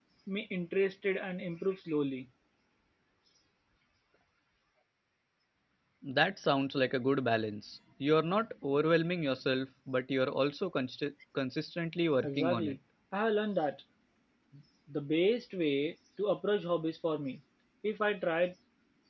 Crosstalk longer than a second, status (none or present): none